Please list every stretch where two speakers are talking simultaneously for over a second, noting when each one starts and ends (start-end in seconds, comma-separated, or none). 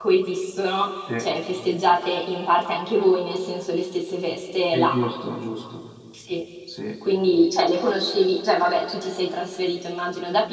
none